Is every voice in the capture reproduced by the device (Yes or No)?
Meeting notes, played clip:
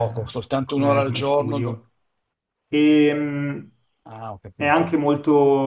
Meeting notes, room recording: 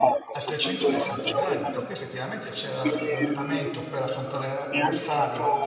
No